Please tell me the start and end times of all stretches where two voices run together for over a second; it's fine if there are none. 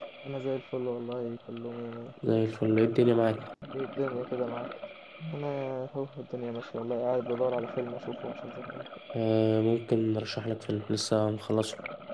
none

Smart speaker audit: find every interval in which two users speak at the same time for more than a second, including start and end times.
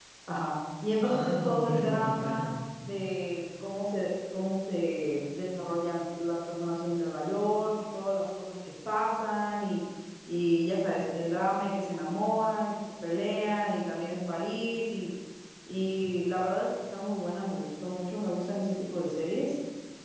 1.0-2.5

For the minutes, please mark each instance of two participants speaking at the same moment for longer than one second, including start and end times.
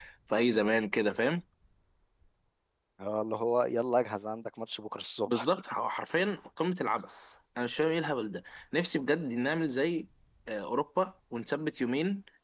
none

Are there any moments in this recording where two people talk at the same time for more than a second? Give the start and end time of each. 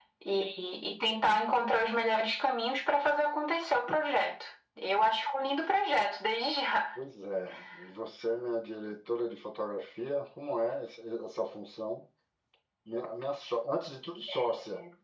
none

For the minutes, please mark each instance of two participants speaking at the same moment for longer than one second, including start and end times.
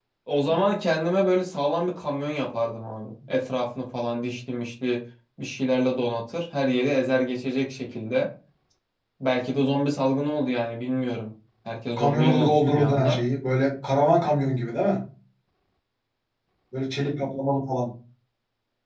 12.0-13.2

